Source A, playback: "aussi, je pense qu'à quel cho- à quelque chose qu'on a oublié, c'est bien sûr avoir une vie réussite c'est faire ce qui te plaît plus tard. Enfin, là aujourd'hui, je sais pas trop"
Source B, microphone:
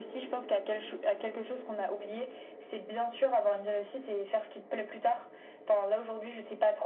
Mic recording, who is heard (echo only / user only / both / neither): echo only